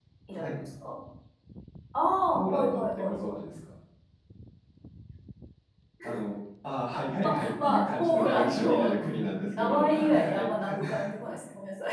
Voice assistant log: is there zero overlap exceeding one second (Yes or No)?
No